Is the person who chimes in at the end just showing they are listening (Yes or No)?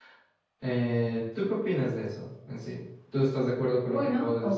No